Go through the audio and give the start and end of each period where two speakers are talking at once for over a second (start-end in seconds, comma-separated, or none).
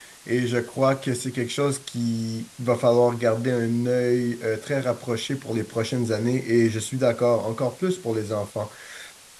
none